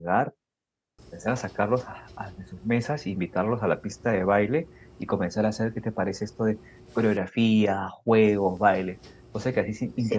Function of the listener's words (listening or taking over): taking over